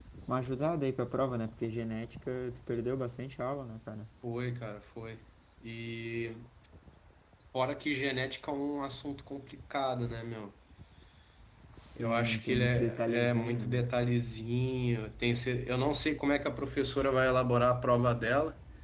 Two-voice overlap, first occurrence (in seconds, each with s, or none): 12.0 s